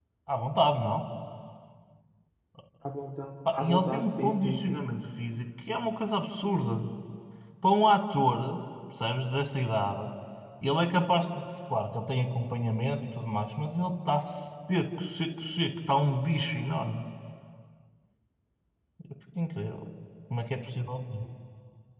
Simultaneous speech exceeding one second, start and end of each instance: 3.5-4.8

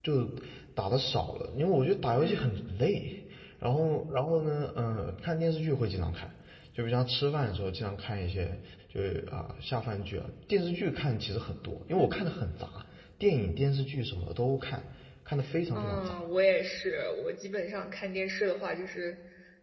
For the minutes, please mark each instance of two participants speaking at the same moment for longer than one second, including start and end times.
none

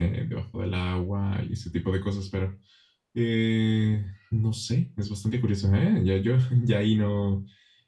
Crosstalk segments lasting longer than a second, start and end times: none

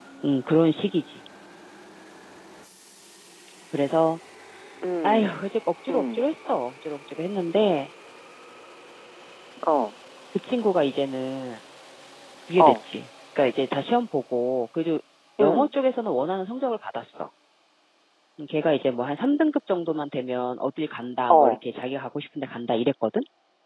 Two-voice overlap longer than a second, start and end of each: none

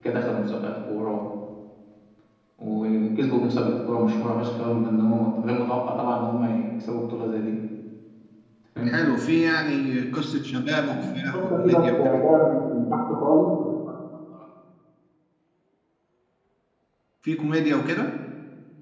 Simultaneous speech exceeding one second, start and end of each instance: 10.8-12.2

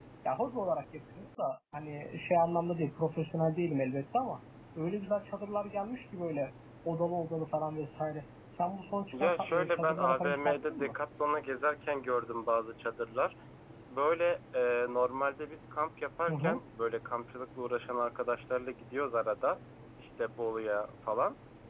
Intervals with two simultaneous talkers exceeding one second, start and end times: 9.1-10.9

